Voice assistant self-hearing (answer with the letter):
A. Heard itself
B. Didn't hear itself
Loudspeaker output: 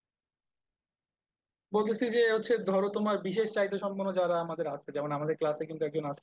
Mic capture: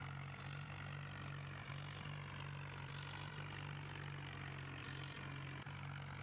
B